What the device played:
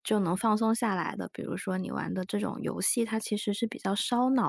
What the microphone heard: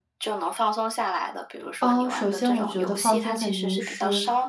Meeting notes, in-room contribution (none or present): present